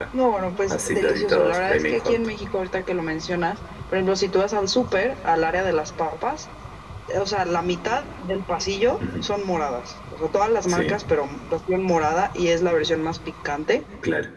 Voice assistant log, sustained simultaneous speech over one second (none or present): present